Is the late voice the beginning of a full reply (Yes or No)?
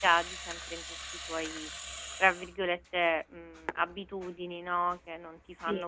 No